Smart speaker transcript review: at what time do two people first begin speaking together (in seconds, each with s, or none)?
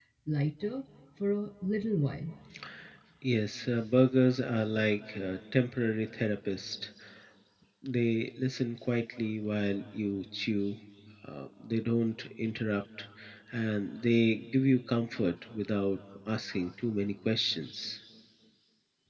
none